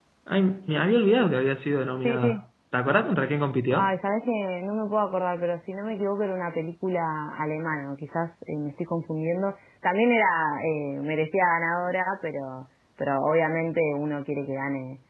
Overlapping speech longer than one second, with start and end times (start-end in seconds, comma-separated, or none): none